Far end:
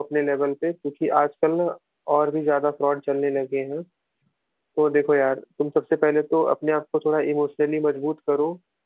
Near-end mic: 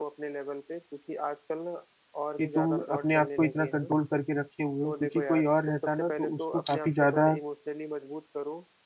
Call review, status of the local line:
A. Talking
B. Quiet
A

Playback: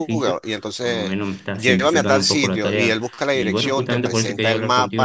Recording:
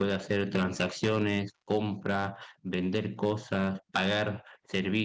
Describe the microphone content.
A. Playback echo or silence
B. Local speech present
B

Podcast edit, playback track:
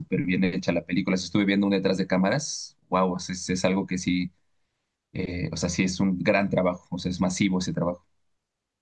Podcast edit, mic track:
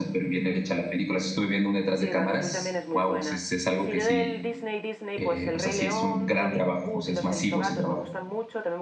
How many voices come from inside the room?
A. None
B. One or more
B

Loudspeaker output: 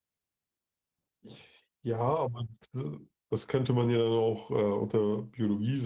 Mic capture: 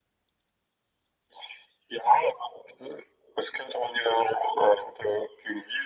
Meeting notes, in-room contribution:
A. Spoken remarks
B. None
B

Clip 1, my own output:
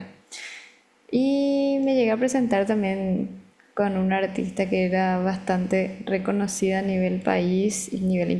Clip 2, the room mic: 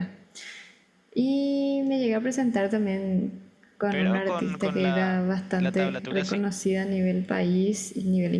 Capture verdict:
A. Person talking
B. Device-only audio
A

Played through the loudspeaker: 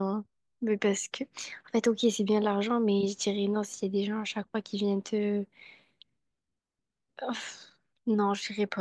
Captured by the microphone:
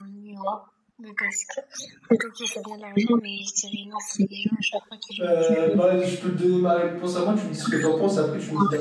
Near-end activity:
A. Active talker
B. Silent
A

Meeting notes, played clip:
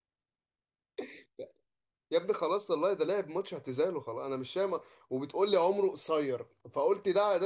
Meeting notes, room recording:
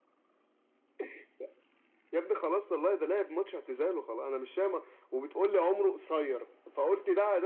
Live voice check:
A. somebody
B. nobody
B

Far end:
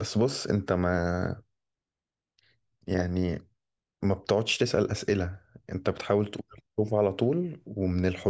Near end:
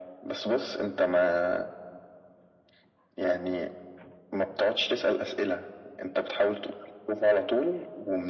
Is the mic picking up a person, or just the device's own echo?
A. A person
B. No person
B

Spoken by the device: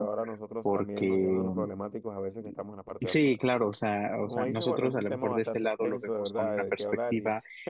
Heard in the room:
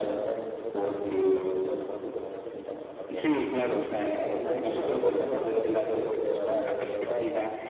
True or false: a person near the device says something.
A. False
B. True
B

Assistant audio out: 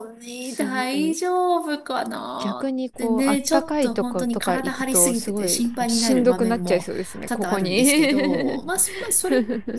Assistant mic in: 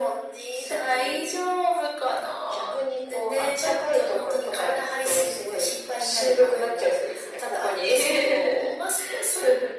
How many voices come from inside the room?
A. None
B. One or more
A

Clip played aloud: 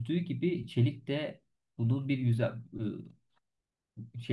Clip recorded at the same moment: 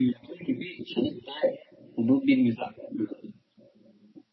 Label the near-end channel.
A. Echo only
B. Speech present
A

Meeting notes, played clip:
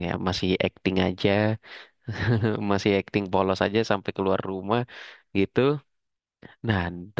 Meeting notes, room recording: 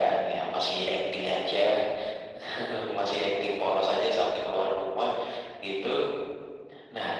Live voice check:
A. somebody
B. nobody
B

